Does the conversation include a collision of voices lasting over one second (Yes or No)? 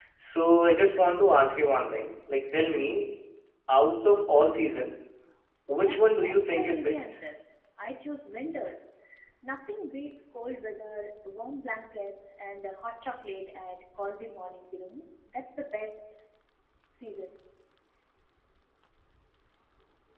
Yes